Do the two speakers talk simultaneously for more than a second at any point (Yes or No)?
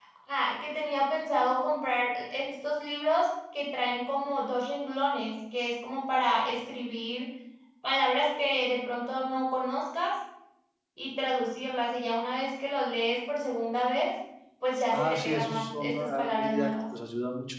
Yes